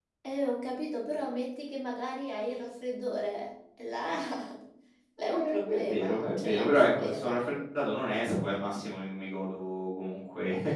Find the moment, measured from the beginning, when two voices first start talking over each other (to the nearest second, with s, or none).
5 s